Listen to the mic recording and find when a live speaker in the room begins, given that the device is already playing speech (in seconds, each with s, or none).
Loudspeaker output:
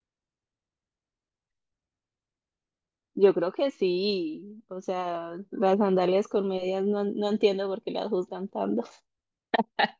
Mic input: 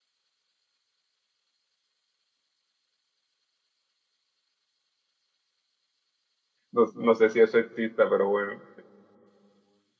6.7 s